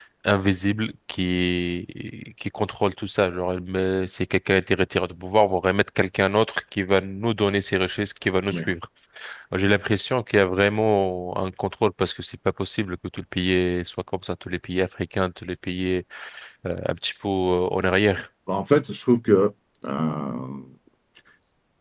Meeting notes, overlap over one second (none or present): none